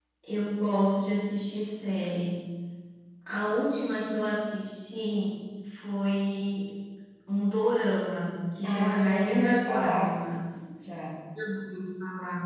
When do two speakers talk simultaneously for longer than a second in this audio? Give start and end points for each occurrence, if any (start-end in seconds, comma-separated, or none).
8.6-10.1